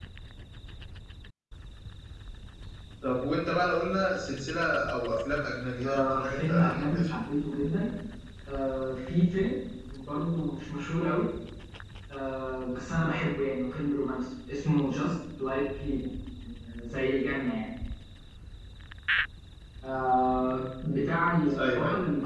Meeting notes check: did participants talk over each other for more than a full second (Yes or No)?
Yes